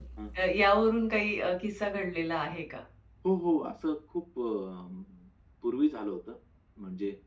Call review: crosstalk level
none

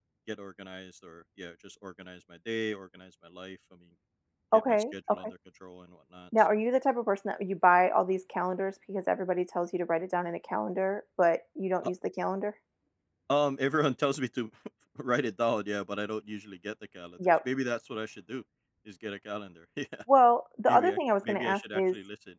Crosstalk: present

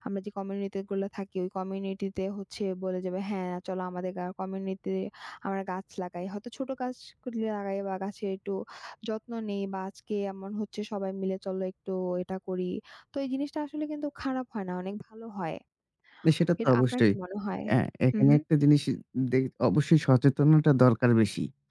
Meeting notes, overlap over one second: none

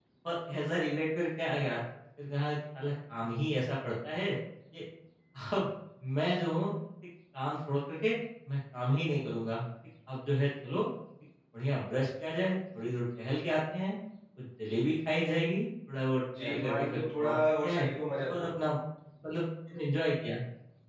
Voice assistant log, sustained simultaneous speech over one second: present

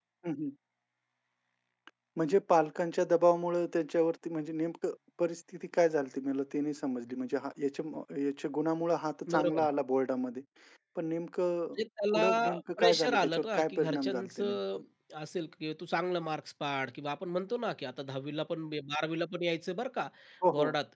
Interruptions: present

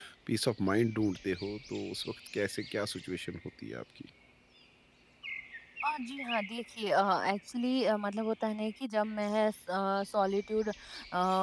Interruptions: none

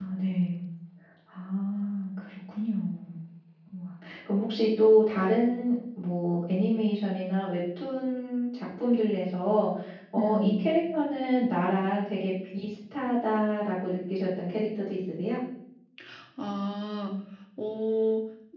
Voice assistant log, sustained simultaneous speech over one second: none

